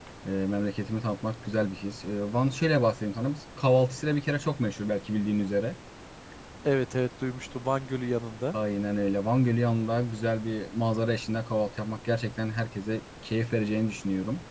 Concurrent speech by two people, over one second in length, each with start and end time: none

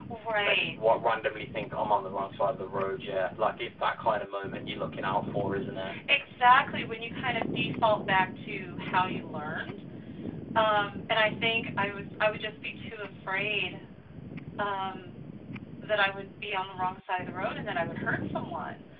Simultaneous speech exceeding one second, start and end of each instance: none

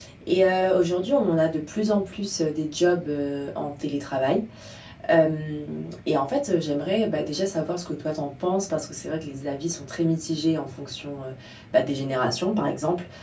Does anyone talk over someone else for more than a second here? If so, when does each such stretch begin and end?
none

